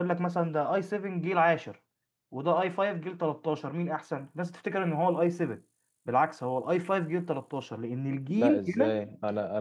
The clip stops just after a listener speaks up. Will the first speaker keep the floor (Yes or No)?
No